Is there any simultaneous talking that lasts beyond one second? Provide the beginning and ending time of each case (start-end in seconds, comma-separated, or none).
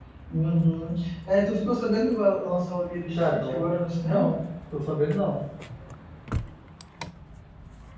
none